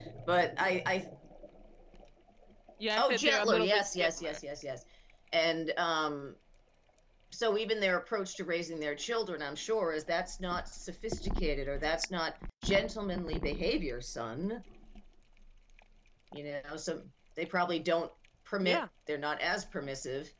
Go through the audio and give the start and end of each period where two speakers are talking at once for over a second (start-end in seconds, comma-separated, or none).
3.0-4.4